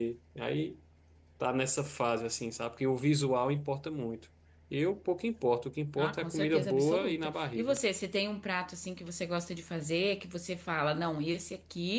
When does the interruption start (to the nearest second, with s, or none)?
6 s